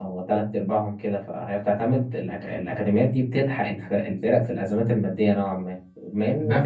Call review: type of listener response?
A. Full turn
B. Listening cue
A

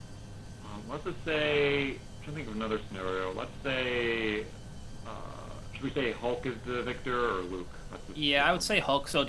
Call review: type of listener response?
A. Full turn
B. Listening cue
A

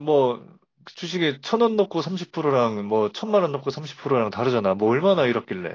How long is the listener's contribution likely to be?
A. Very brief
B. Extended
B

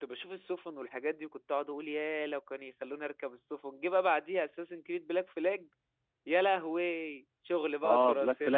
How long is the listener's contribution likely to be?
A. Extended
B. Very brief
A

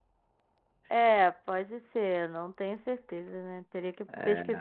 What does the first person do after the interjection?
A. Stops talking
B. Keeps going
B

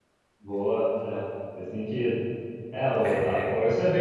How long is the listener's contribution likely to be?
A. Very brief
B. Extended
A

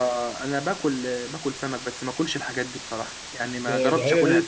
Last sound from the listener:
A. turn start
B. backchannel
A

